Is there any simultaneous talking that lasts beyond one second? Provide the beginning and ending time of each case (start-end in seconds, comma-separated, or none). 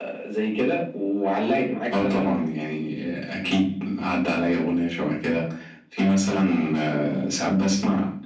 none